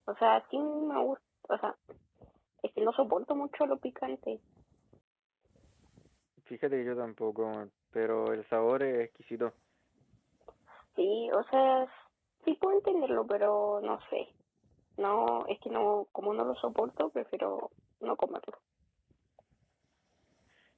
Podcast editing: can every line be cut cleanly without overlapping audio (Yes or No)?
Yes